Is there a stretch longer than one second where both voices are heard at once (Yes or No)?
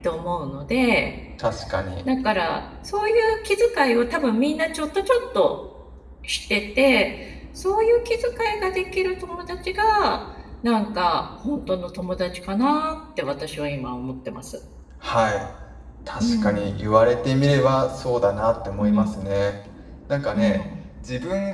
No